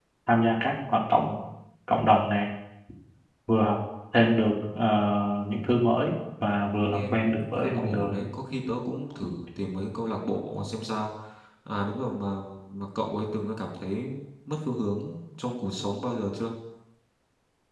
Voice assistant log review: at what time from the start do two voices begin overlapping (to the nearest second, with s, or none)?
7 s